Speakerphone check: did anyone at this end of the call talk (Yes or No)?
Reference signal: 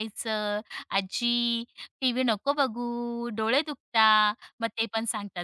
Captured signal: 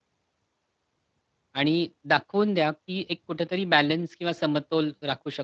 Yes